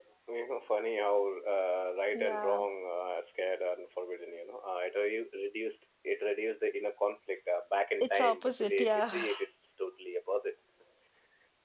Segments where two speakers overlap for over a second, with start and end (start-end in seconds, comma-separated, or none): 8.0-9.3